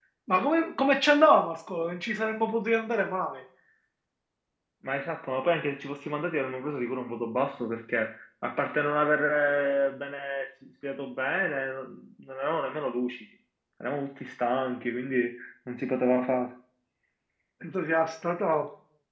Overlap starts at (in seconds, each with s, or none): none